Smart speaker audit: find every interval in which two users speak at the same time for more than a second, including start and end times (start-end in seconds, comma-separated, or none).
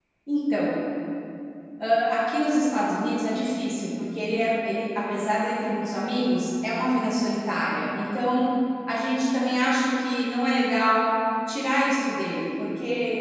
none